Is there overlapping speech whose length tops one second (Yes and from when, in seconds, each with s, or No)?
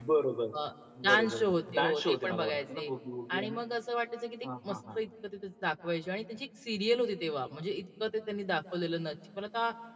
Yes, from 1.0 s